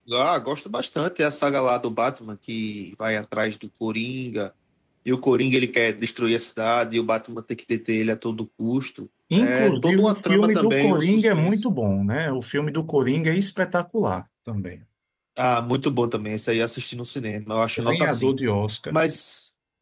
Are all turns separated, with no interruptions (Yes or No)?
No